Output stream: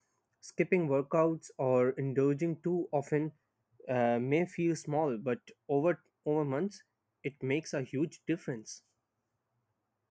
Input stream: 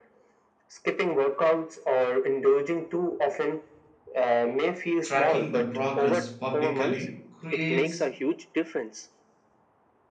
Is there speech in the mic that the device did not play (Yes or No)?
Yes